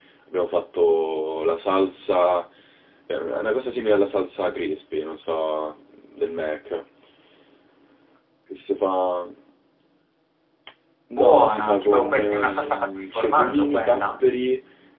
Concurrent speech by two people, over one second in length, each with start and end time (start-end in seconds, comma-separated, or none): 11.2-14.3